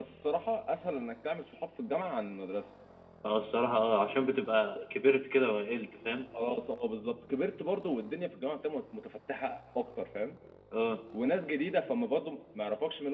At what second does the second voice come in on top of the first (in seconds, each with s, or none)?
none